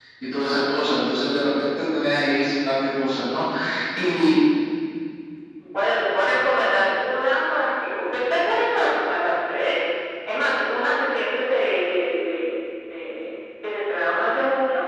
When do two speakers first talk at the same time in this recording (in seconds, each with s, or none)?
none